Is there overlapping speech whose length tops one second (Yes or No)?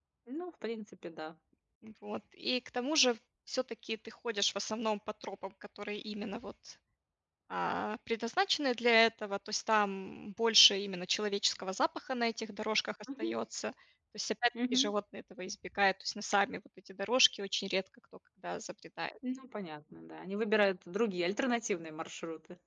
No